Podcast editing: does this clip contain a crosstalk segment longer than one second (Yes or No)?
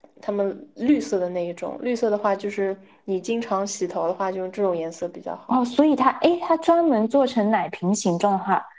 No